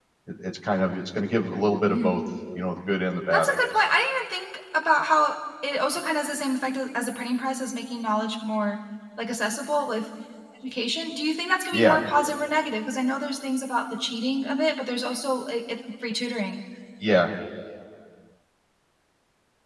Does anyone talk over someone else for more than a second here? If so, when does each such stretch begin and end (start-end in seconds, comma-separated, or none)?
none